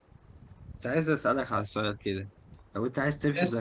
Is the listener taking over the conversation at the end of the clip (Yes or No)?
No